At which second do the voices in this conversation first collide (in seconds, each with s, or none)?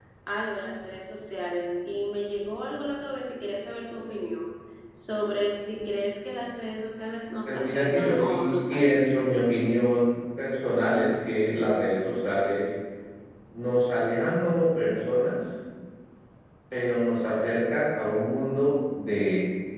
7.5 s